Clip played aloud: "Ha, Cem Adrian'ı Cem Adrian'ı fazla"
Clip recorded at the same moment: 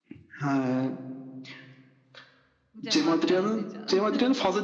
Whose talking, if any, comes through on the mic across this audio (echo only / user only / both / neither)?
both